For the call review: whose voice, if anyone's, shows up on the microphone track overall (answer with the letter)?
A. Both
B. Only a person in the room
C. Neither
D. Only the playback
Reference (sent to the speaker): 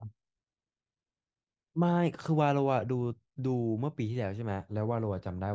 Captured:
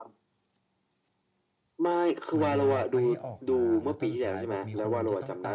A